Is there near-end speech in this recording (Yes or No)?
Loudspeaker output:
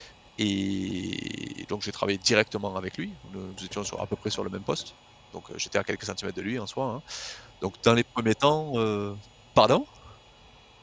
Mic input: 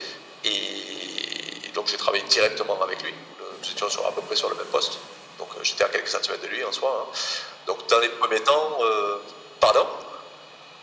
No